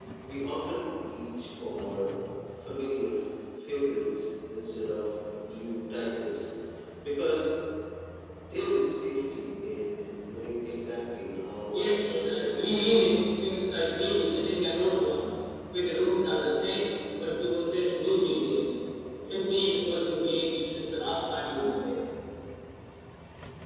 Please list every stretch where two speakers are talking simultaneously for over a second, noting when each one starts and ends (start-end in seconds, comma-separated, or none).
11.7-13.4